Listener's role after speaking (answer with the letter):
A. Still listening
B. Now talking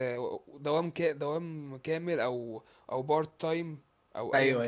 B